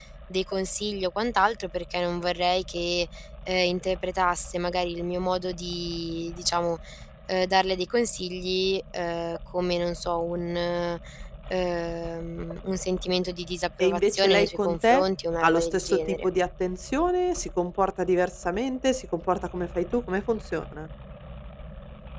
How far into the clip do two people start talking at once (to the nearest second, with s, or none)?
14 s